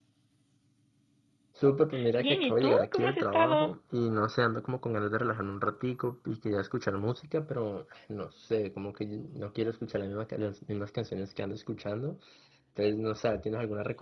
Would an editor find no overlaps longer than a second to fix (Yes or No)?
No